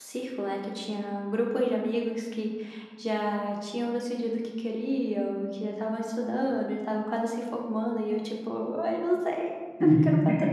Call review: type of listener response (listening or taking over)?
listening